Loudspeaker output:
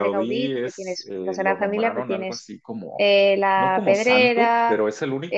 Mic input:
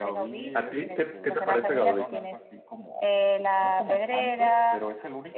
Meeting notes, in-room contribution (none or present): present